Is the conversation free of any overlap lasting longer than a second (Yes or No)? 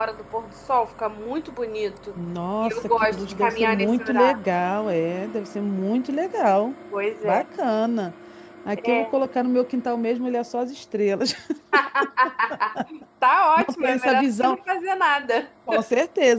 No